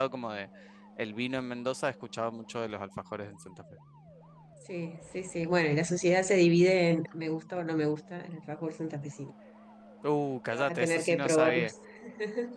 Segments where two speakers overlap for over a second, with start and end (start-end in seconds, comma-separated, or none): 10.5-11.7